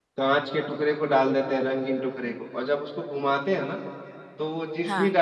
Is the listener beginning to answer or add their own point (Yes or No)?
No